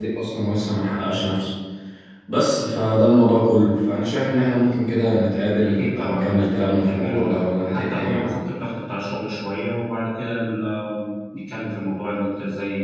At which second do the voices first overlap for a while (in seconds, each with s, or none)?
5.8 s